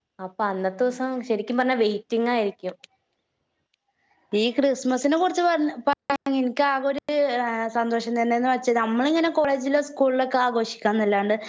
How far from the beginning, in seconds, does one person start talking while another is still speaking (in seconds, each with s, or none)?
none